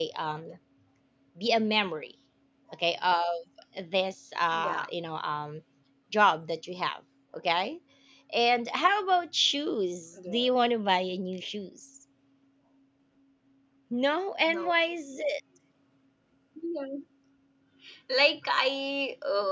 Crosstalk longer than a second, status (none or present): none